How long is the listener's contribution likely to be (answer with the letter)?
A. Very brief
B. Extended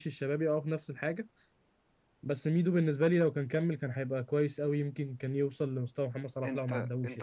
B